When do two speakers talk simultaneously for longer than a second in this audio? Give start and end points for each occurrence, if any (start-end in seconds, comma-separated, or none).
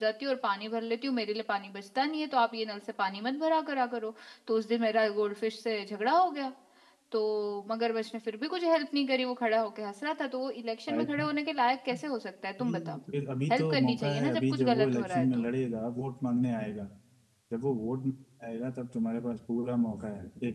13.5-15.5